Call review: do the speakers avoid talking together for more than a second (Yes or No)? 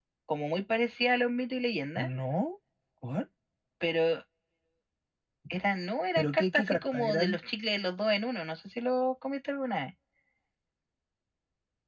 No